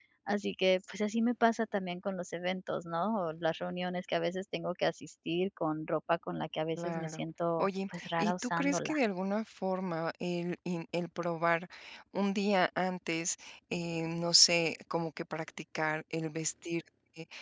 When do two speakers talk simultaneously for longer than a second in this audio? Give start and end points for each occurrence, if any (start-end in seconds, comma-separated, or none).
7.6-8.9